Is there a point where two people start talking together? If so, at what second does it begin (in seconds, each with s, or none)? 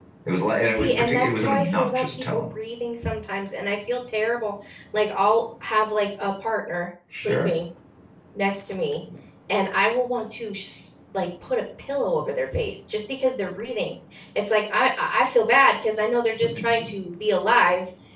0.7 s